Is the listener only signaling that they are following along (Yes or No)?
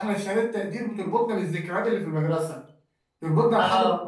Yes